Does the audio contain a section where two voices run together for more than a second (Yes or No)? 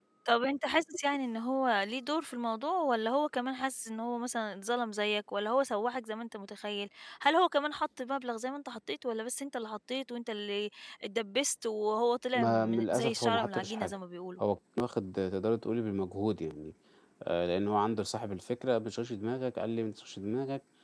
Yes